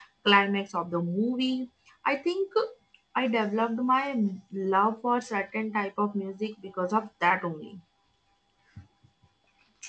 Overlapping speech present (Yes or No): No